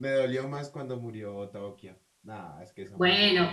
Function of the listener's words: taking over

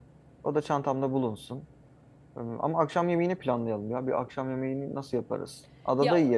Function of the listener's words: taking over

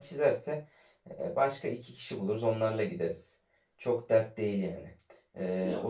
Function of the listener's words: listening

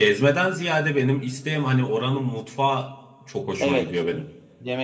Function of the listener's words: taking over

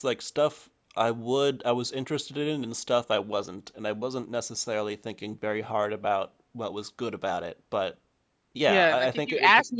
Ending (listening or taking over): taking over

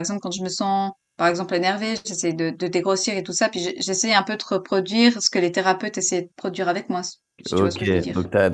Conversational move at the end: taking over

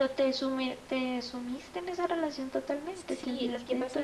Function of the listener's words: taking over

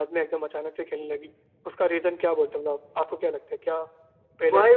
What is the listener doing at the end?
taking over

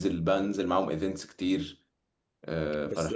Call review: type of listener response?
taking over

